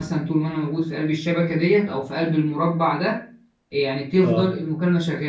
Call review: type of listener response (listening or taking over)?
listening